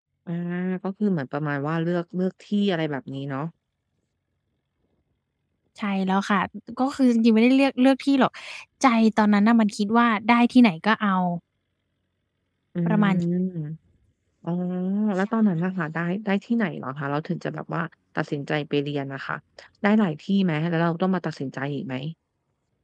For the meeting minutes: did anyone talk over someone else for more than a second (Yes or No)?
No